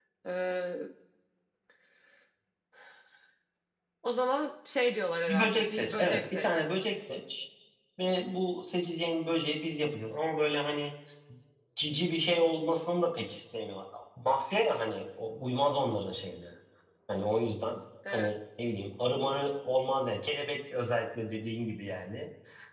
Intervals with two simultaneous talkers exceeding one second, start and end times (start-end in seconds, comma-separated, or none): 5.3-6.6